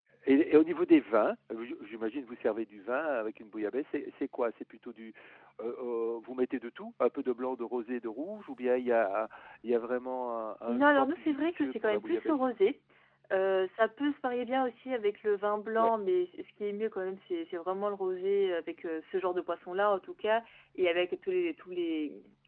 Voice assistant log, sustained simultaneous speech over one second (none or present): present